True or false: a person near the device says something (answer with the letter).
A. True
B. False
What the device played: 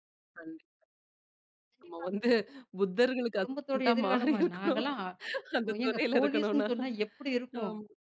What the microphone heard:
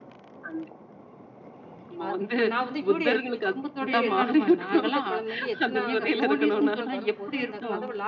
A